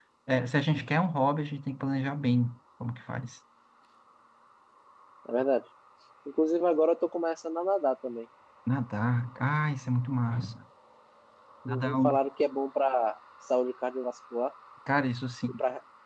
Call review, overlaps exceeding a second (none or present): none